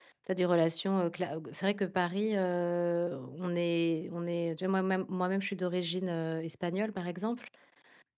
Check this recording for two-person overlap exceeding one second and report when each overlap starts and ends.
none

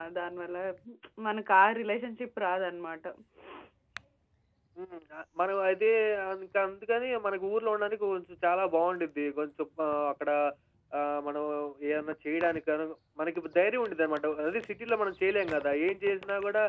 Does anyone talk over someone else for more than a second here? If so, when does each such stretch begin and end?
none

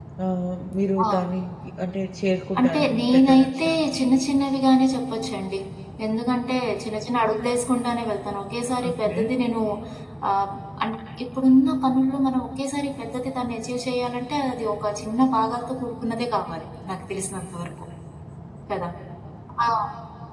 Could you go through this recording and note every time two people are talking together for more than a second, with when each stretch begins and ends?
2.6-3.9

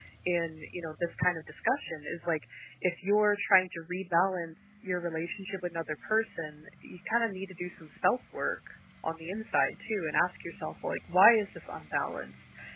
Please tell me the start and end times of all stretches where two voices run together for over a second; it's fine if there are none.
none

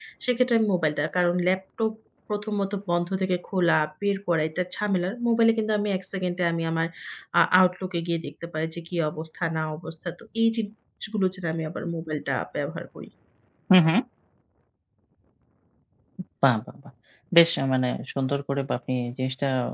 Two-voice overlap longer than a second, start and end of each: none

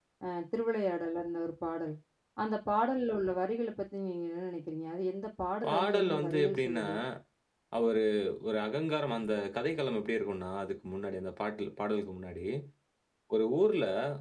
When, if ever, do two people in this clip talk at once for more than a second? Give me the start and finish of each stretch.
5.7-6.9

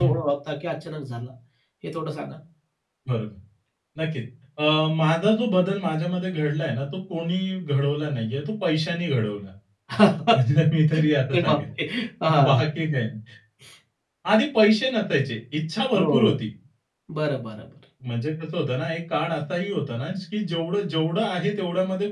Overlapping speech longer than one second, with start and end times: none

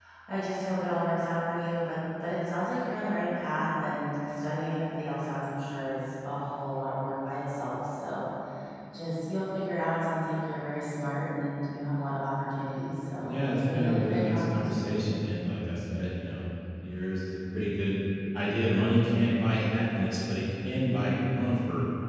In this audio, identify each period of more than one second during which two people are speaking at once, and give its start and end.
13.2-15.0

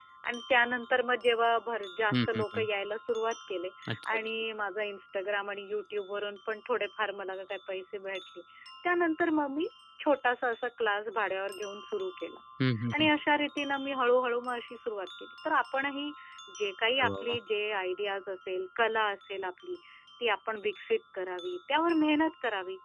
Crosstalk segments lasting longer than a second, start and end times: none

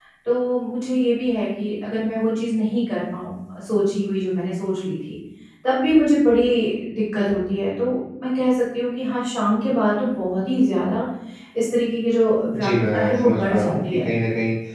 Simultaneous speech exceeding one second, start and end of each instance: 12.6-14.0

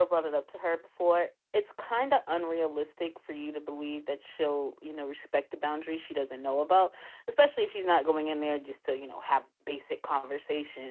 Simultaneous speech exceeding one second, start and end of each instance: none

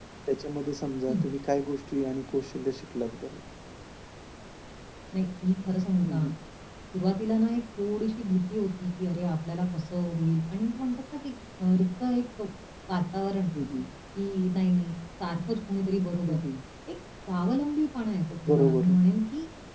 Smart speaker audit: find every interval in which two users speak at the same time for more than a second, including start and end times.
none

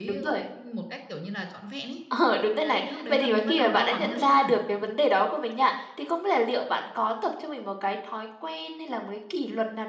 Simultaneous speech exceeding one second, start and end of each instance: 2.6-4.5

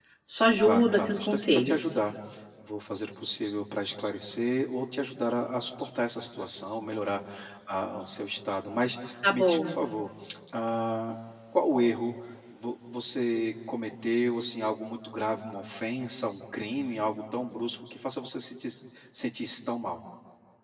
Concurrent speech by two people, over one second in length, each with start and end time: 0.6-2.0

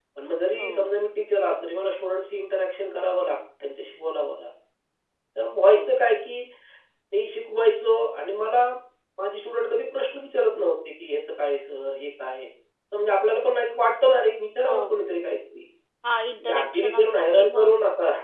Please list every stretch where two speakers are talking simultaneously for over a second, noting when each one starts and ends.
16.4-17.7

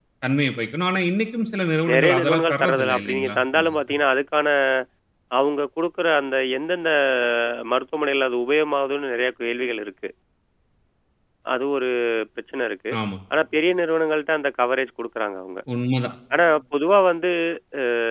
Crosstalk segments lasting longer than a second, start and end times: 1.9-3.8

